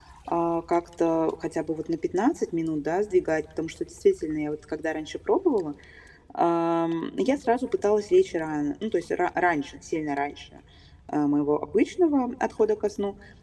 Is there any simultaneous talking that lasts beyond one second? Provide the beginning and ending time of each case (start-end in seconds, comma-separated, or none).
none